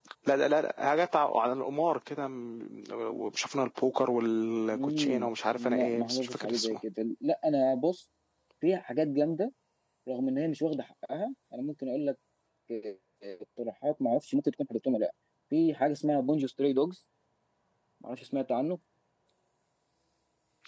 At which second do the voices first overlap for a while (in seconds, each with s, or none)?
4.7 s